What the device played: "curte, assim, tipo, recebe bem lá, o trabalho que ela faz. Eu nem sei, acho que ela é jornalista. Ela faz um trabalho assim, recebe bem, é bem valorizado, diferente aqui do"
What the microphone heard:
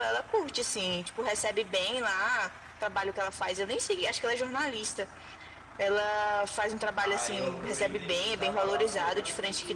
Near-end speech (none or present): present